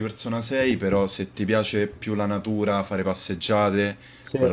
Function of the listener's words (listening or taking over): listening